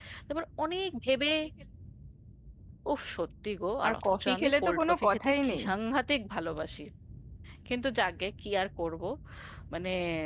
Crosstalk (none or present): present